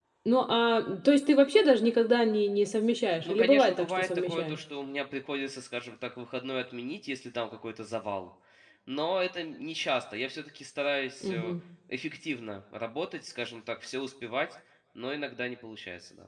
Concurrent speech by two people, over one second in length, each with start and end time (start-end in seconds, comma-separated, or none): 3.2-4.6